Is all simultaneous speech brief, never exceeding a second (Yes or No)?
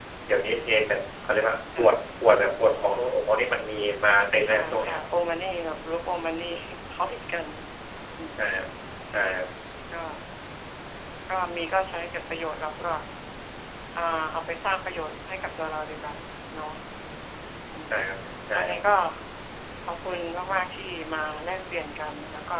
Yes